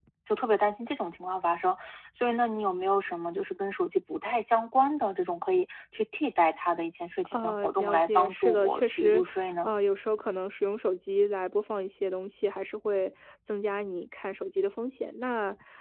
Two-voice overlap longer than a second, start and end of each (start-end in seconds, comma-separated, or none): 7.3-9.2